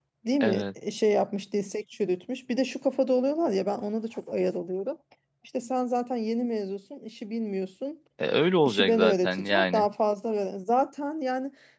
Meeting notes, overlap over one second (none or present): present